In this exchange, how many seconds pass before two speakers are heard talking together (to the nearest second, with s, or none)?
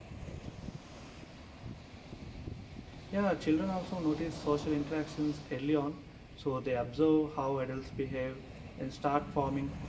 none